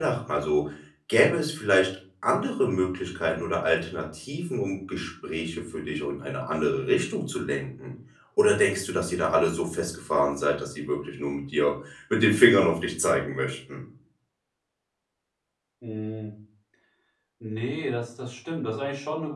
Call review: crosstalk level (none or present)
none